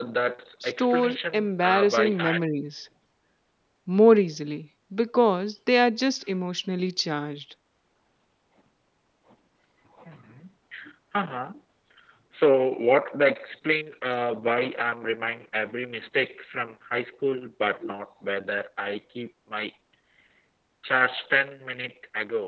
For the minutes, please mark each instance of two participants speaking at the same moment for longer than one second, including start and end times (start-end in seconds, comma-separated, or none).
0.6-2.4